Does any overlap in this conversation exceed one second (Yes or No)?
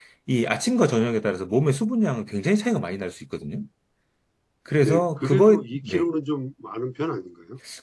Yes